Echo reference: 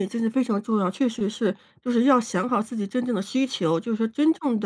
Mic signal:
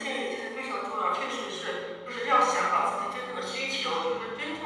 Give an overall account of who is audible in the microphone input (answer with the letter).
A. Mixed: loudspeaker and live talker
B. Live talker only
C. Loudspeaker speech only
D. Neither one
C